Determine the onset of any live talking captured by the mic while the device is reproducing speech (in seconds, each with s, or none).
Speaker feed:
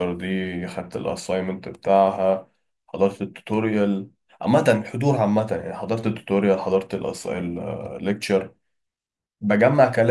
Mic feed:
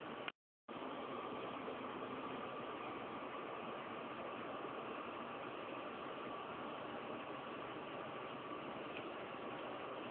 none